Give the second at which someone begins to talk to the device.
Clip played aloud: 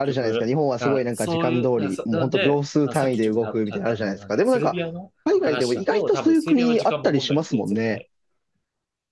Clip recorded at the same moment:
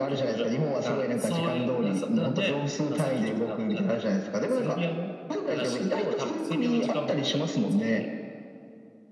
none

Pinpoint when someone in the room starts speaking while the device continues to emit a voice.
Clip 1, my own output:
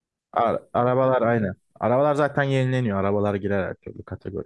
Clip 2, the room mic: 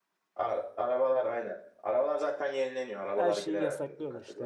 3.1 s

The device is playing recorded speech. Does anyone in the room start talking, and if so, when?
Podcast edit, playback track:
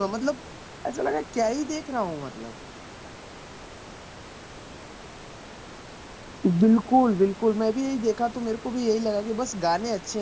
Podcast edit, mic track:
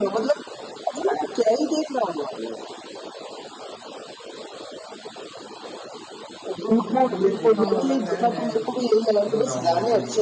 6.8 s

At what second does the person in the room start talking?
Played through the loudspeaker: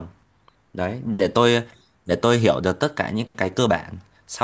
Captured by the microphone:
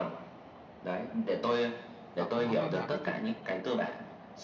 2.2 s

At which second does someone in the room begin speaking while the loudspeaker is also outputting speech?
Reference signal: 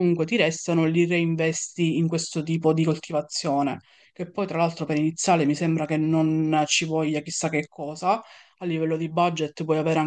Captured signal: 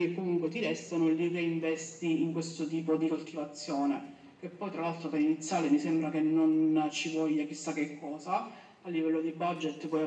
none

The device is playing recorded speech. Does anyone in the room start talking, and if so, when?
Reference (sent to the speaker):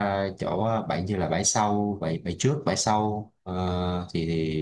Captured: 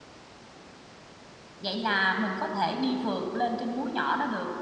1.6 s

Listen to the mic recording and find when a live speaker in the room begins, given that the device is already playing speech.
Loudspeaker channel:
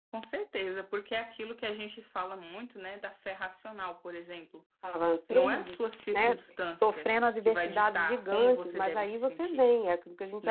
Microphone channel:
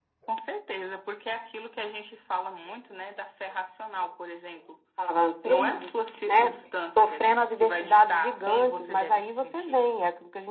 none

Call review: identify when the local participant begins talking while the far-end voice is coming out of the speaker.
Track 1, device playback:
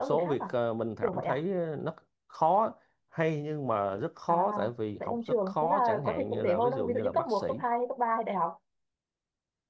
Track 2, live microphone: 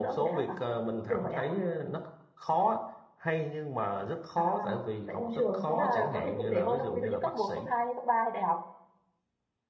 none

